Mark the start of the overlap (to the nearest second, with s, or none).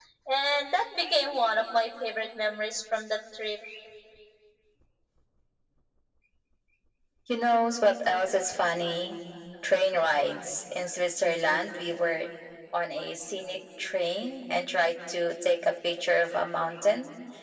none